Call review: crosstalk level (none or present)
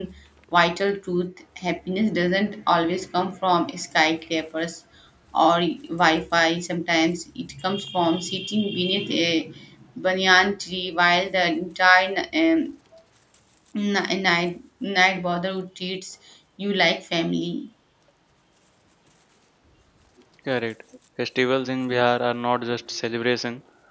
none